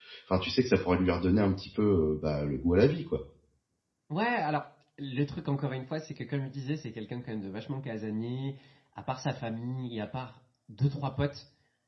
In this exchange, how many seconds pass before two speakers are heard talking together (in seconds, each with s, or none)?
none